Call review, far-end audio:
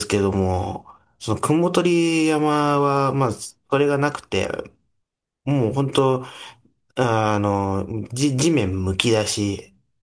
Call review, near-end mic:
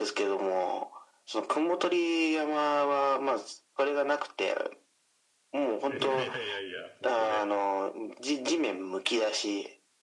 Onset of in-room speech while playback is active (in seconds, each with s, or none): 5.8 s